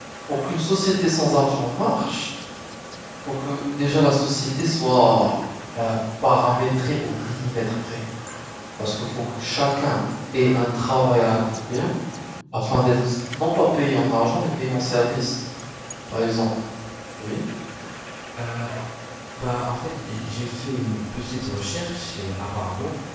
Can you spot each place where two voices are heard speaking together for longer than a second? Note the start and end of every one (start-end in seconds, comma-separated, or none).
none